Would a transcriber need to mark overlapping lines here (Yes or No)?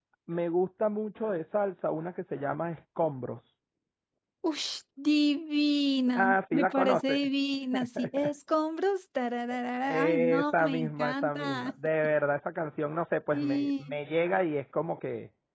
Yes